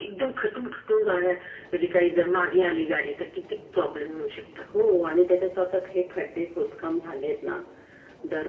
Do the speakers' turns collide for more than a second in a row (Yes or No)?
No